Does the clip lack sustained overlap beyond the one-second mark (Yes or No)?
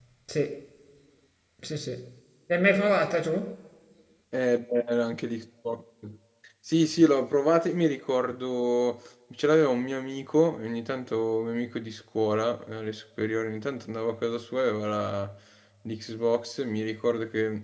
Yes